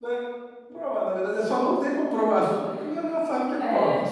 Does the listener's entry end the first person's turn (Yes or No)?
Yes